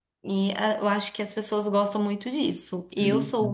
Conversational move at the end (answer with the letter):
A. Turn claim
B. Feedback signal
B